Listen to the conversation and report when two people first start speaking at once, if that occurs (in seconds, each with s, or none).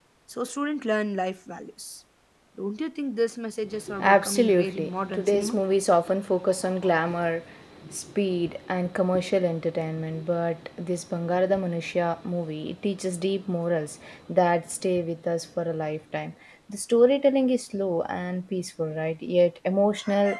3.9 s